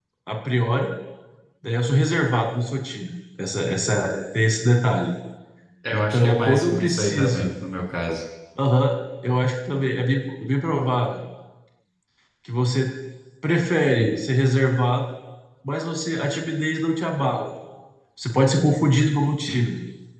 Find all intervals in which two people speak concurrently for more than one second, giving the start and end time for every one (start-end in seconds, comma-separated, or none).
5.9-7.5